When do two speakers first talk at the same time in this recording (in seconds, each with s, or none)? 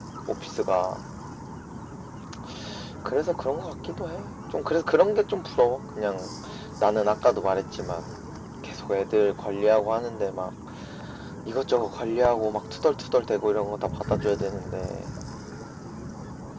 none